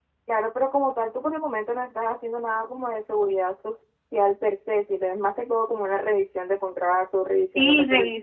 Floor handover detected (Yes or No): Yes